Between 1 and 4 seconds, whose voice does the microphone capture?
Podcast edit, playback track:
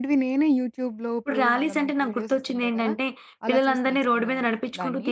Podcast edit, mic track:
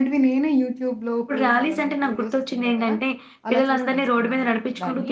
echo only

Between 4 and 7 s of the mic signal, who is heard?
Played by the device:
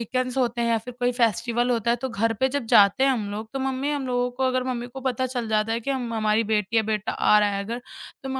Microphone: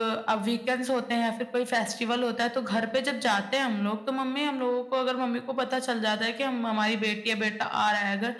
echo only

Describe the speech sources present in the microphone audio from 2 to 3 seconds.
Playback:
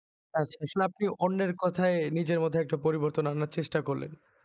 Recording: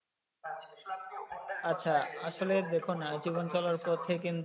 both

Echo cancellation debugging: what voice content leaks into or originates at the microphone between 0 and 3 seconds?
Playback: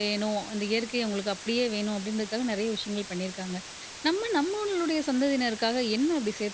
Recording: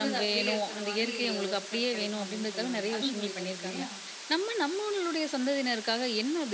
both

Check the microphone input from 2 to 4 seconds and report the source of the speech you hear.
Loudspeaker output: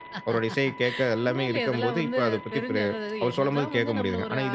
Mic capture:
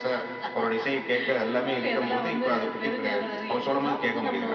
echo only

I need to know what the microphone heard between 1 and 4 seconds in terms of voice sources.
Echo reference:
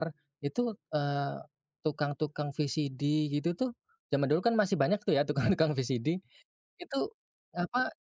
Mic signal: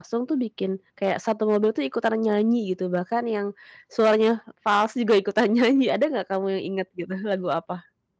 user only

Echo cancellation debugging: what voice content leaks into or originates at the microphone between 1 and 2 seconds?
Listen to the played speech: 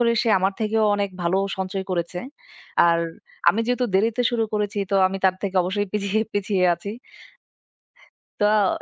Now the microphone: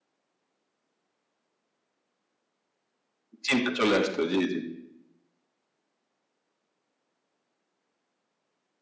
neither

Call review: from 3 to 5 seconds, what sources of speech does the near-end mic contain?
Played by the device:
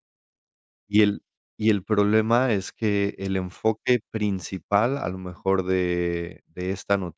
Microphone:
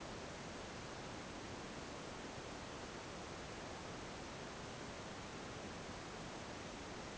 neither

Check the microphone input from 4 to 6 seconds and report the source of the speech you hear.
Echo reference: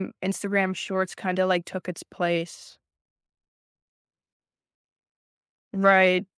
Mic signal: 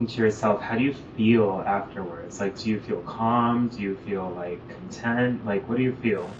user only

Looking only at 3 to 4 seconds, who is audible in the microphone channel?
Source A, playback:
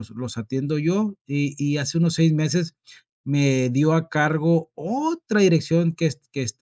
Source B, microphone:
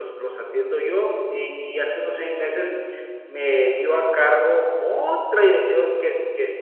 echo only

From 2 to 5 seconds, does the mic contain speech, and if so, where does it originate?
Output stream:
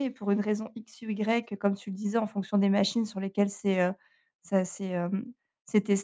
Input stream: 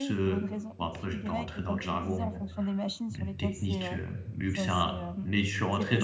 both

